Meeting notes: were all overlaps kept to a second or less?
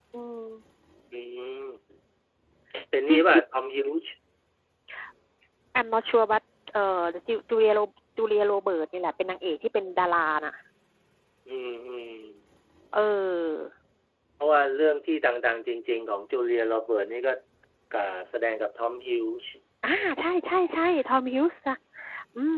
Yes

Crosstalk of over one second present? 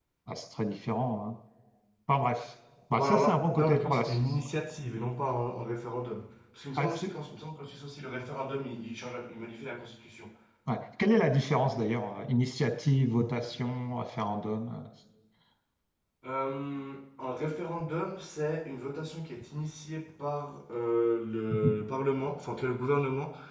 Yes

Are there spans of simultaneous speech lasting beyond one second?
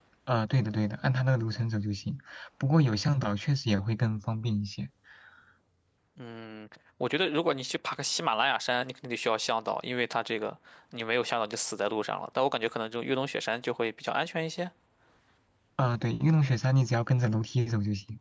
No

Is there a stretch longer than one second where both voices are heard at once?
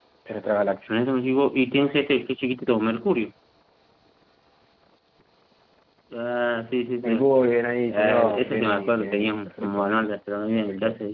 Yes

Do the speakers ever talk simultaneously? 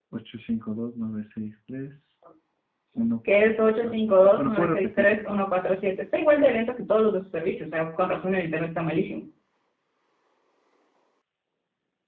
Yes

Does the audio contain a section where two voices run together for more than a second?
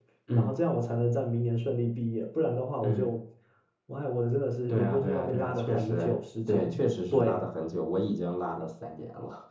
Yes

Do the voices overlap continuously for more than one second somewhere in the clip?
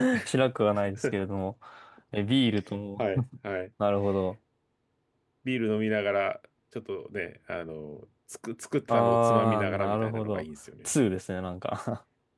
Yes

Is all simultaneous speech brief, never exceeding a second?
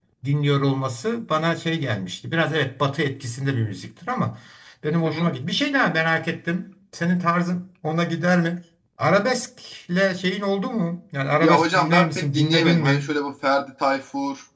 No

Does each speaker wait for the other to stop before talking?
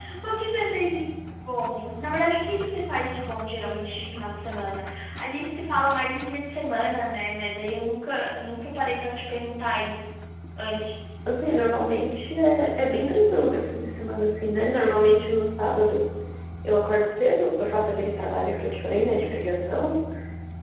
Yes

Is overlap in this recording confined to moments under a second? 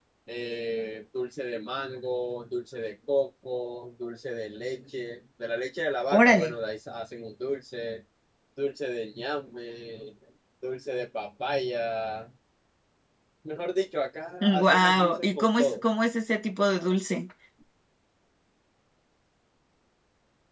No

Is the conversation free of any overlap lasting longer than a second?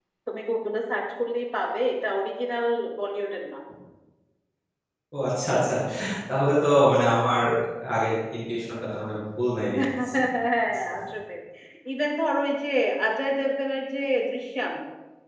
Yes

